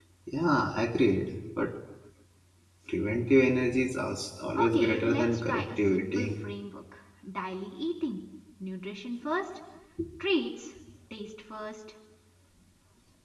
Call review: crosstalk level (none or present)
present